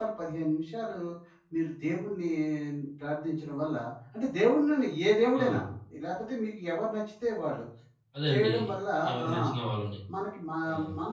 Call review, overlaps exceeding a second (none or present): none